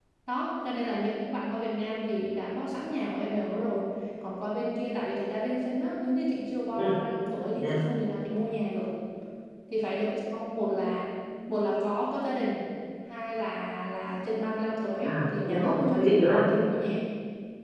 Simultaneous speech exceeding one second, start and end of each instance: 15.0-16.4

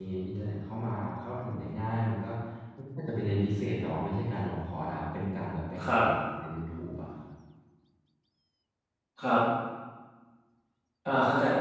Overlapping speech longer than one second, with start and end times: none

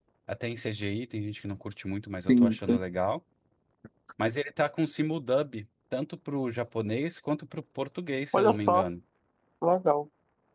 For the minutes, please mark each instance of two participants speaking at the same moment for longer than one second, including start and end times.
none

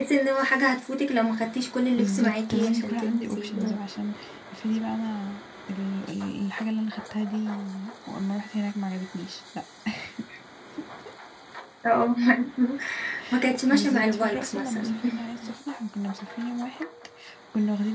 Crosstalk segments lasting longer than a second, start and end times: 1.9-3.6, 13.7-15.0

